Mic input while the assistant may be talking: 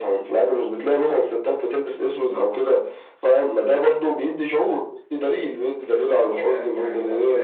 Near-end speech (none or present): present